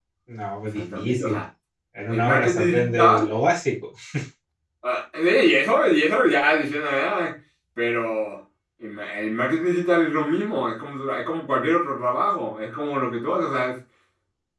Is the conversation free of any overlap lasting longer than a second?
No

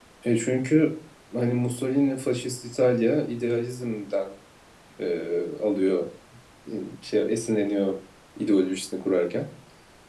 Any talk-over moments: No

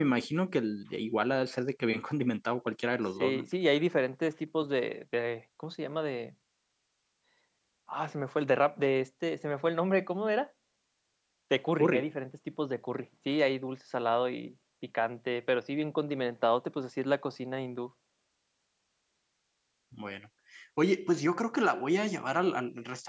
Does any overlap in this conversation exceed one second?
No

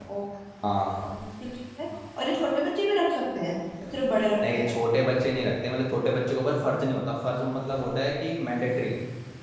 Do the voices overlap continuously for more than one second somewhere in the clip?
No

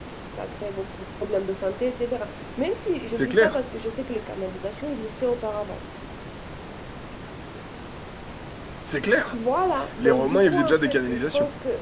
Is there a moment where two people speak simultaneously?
Yes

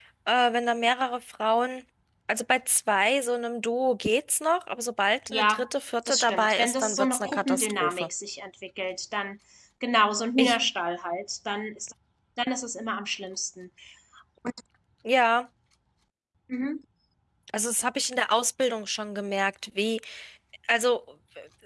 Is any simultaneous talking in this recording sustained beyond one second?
Yes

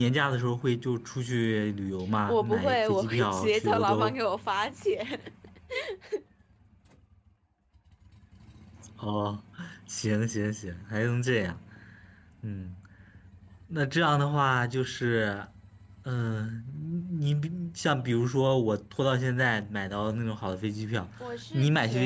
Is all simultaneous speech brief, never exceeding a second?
No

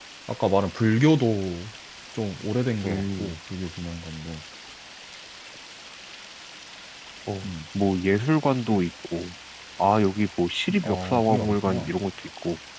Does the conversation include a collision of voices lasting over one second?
Yes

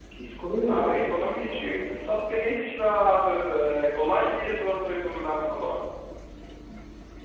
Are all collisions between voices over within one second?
No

